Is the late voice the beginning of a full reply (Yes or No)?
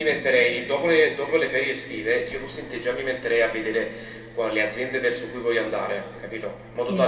No